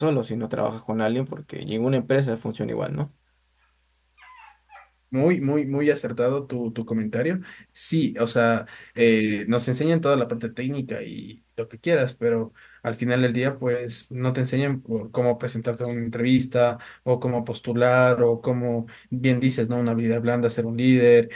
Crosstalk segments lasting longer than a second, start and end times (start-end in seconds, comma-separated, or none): none